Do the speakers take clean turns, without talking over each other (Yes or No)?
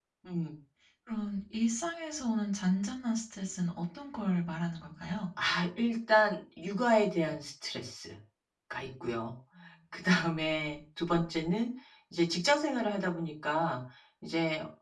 Yes